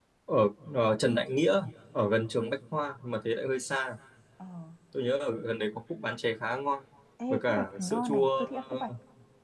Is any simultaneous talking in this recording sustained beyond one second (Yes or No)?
Yes